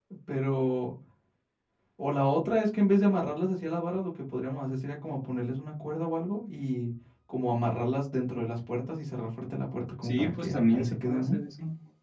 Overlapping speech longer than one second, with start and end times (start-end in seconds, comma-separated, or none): 10.0-11.4